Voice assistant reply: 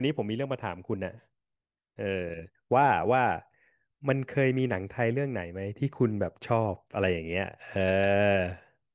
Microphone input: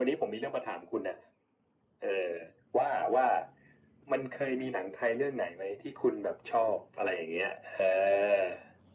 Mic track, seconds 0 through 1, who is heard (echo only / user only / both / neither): echo only